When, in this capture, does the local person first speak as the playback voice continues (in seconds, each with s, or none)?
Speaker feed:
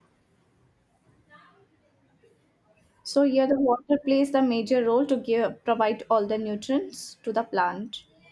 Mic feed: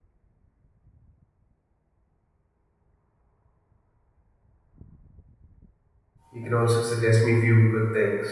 6.3 s